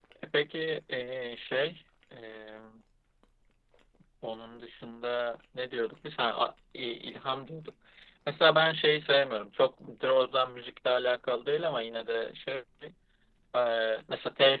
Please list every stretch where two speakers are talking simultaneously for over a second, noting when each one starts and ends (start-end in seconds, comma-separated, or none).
none